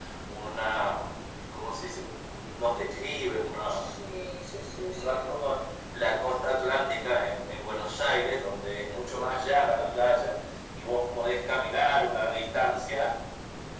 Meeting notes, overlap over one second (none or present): none